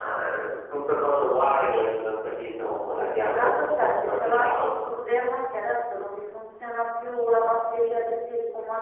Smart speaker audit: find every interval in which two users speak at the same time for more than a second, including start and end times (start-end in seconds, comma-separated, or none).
3.3-4.9